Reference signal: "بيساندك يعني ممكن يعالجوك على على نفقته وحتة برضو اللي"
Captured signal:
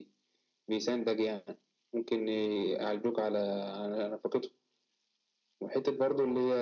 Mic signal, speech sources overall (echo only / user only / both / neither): echo only